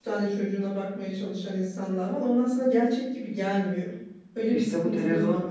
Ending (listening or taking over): taking over